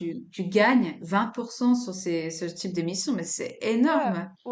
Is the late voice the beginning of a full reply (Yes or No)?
Yes